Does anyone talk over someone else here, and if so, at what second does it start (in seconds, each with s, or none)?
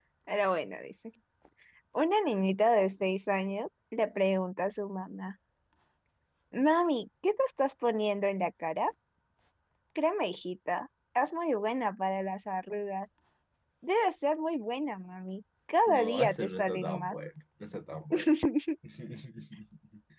15.9 s